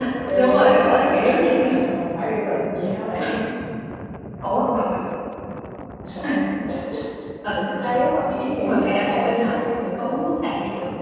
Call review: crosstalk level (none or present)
present